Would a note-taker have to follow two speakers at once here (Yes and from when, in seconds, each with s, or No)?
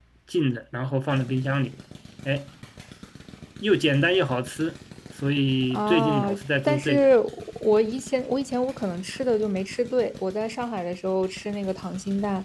Yes, from 5.7 s